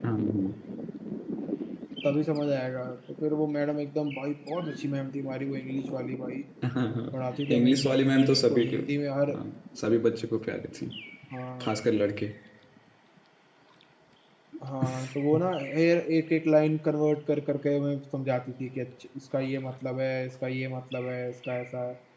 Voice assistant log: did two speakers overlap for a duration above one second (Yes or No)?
Yes